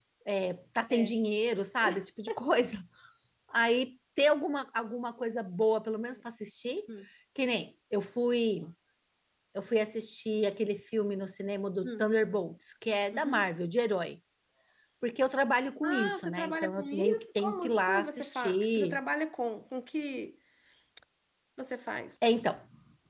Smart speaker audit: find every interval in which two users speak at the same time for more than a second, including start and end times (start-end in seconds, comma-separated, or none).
15.8-19.0